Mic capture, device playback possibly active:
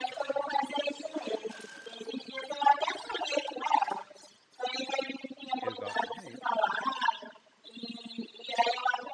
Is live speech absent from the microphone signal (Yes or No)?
No